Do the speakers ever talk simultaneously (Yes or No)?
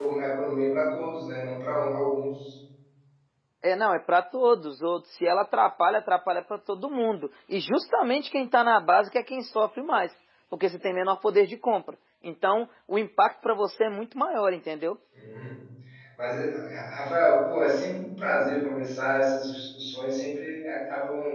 No